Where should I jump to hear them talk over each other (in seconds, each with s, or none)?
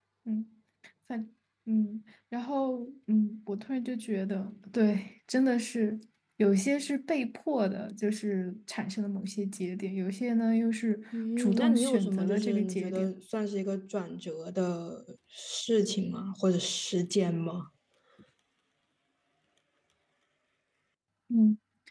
11.4 s